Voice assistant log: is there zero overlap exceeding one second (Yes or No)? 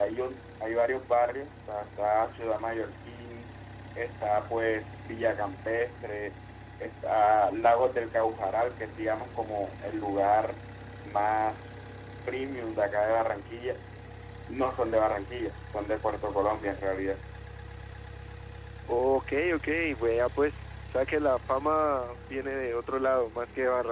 Yes